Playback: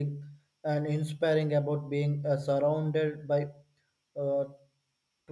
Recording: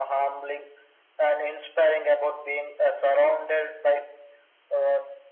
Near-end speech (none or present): none